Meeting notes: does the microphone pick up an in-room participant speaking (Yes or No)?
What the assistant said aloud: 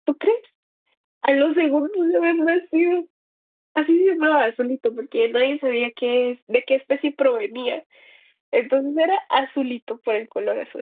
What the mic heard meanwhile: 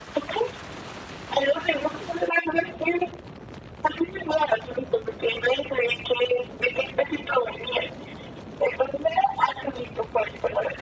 No